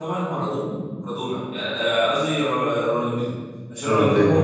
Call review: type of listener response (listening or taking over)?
listening